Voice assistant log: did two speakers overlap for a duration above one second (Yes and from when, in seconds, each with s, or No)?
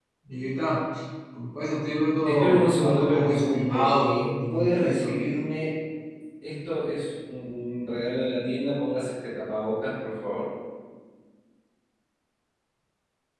Yes, from 2.2 s